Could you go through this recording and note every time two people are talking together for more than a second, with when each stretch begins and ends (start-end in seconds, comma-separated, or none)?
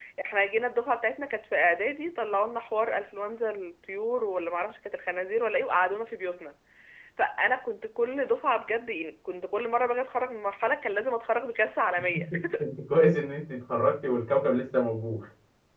none